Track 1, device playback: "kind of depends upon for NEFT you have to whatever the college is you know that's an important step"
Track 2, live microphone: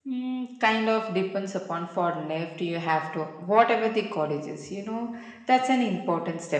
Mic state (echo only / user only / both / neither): echo only